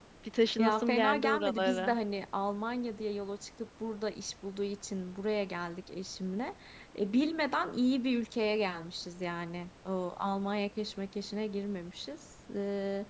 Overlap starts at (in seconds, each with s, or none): 0.6 s